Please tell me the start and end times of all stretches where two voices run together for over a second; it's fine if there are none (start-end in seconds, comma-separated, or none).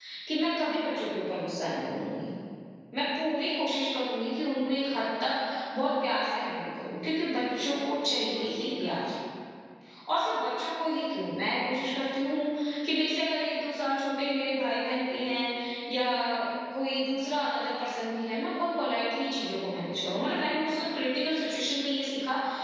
7.6-9.0